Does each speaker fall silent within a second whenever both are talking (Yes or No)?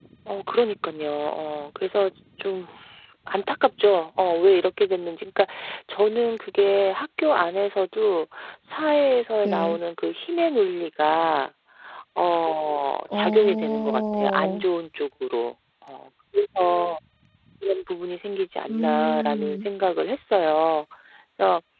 No